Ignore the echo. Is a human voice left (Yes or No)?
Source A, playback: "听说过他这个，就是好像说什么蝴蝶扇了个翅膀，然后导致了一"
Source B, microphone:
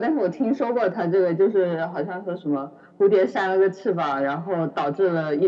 No